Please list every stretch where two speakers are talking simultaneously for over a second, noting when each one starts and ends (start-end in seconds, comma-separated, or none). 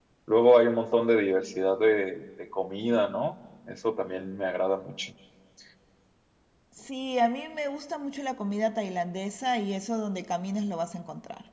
none